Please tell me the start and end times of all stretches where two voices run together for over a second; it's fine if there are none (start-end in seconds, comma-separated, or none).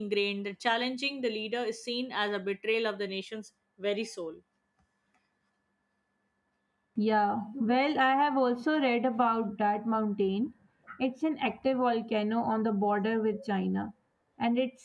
none